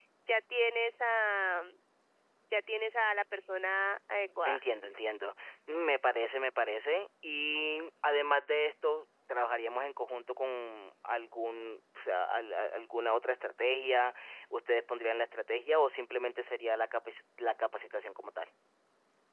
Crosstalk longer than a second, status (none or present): none